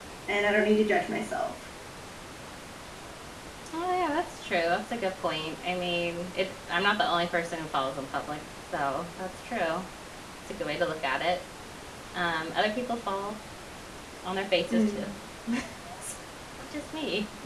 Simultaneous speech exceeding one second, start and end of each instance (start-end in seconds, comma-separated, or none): none